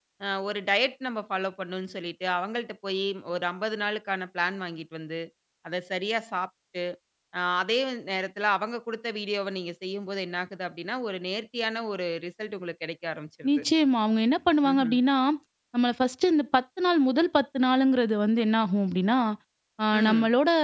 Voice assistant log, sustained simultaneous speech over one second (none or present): none